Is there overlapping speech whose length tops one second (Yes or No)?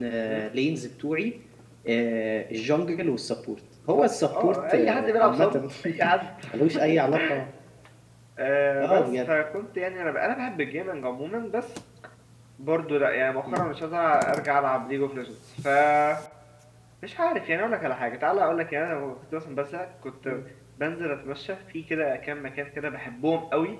Yes